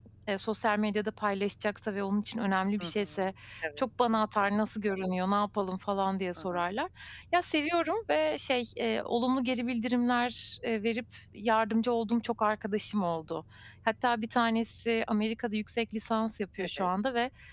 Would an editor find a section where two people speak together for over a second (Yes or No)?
No